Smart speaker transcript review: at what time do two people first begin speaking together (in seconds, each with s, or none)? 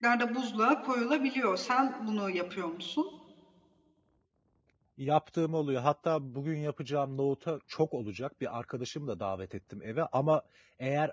none